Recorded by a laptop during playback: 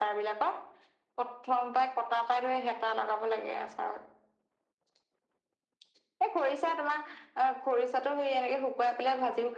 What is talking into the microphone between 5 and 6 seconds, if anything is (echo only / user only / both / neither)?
neither